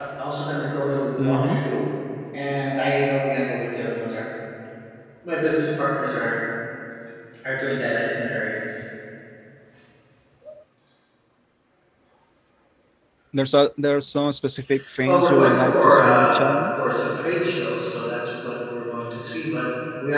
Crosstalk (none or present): present